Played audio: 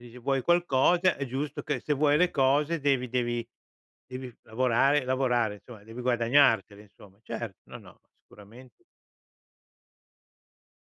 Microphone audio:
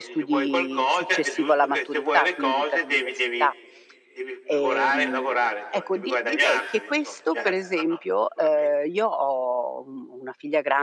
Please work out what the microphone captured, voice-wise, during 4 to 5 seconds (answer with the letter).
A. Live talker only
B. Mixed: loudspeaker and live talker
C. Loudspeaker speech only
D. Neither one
B